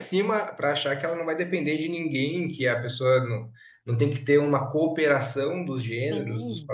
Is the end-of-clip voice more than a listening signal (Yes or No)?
Yes